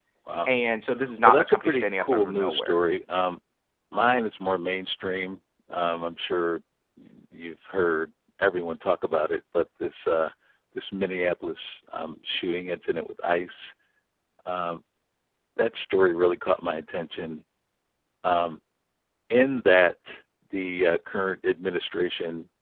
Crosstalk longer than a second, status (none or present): present